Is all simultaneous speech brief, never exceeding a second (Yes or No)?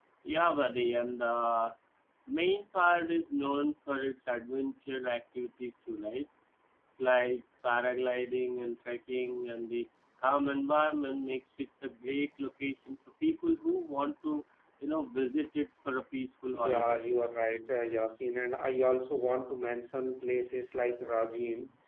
Yes